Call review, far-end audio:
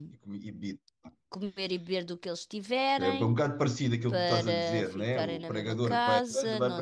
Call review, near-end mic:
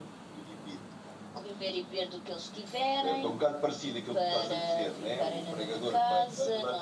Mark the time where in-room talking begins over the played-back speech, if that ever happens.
none

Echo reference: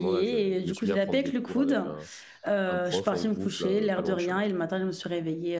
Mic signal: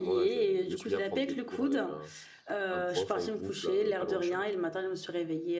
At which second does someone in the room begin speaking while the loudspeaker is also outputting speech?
none

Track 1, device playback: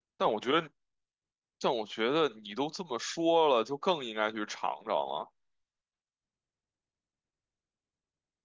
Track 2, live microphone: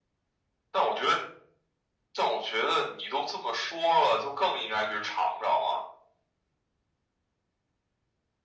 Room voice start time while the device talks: none

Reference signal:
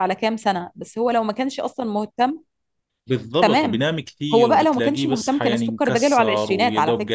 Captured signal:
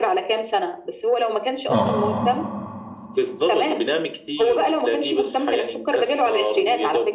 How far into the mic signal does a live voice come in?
2 s

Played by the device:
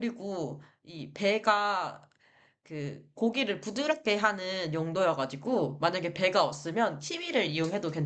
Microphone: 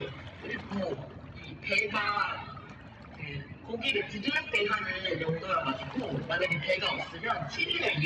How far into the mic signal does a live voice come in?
none

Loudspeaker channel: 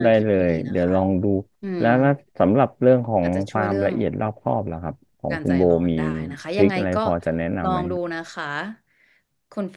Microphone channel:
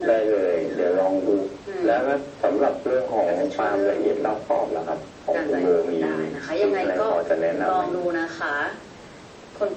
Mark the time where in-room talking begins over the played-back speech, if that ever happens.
none

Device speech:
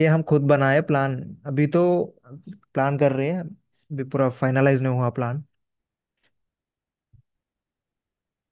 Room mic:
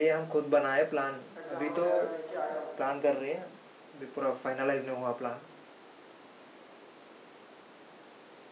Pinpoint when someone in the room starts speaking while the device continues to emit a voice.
1 s

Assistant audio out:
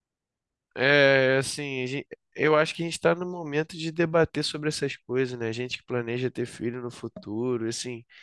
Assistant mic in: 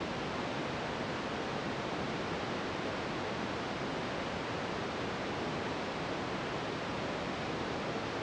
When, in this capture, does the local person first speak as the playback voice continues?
none

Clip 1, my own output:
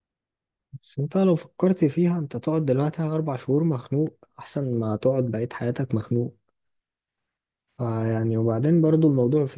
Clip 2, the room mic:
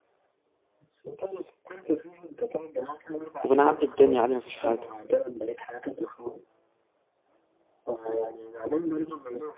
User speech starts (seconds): 3 s

